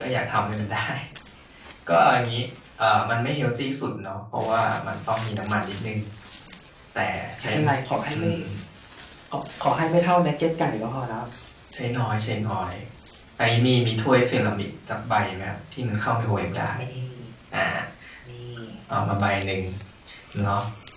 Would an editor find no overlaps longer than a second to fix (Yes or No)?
Yes